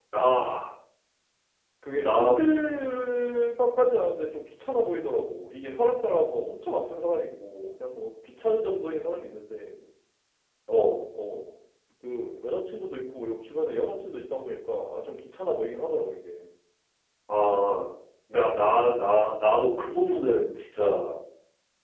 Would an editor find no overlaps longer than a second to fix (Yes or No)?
Yes